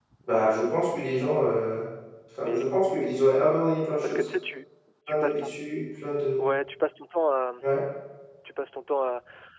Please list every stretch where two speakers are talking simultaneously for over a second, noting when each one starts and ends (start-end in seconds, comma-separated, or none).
none